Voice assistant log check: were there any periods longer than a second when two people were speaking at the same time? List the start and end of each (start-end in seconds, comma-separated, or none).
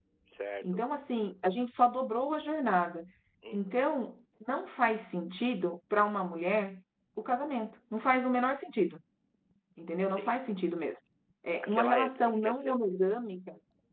11.5-12.8